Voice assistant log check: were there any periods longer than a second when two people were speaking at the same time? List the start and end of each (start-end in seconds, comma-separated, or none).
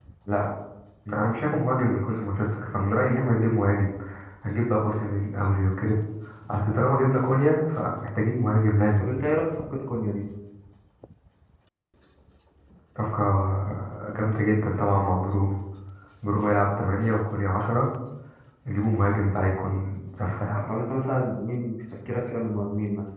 none